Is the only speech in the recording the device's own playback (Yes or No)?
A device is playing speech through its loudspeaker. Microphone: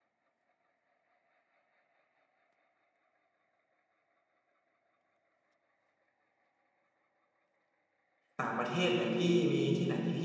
No